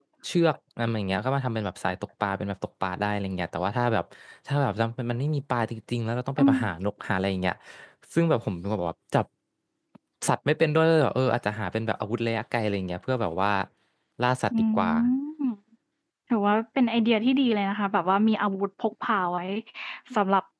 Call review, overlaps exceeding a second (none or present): none